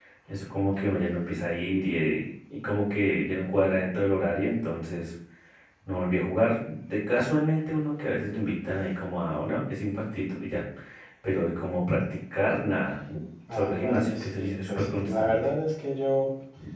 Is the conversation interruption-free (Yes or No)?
No